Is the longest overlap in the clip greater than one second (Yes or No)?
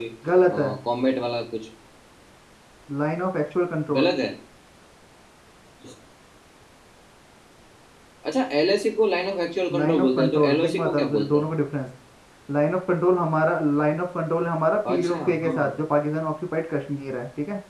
Yes